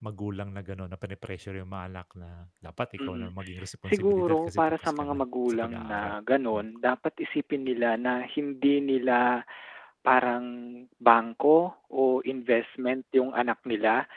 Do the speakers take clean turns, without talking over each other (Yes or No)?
No